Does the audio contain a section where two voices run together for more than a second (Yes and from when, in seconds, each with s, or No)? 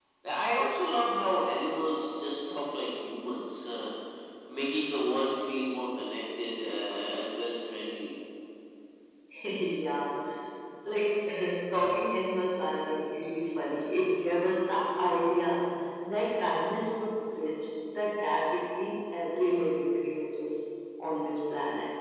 No